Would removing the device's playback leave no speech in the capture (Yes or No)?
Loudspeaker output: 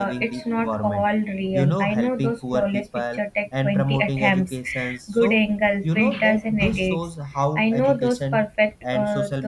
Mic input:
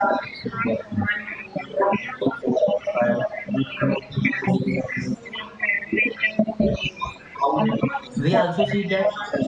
No